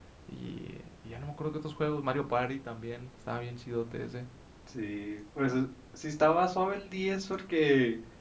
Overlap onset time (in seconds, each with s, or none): none